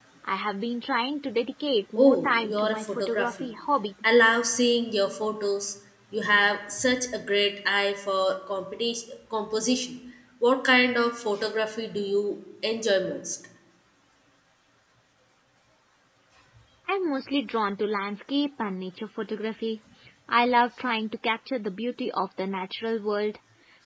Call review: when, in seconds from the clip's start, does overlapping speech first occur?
2 s

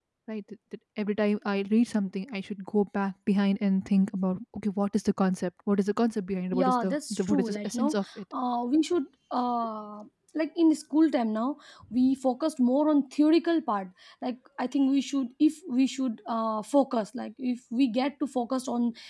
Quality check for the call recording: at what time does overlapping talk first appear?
7 s

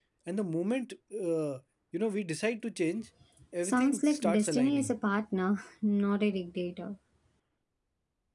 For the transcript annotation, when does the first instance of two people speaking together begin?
4 s

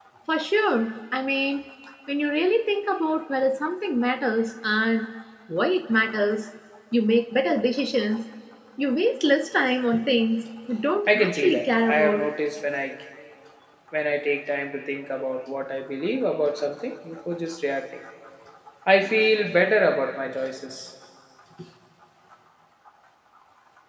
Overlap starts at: 11 s

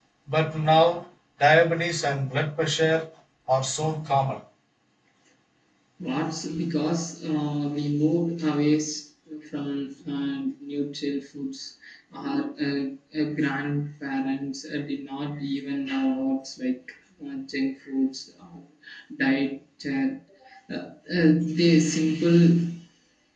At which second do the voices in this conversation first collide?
none

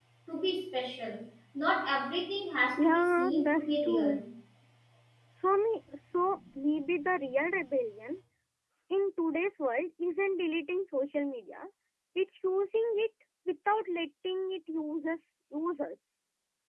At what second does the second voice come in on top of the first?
3 s

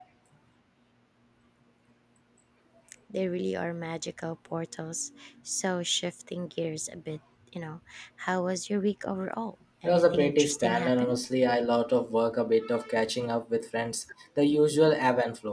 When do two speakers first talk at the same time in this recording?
10 s

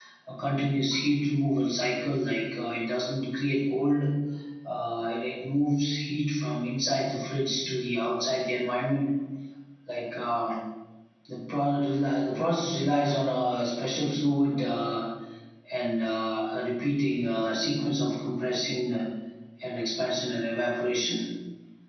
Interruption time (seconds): none

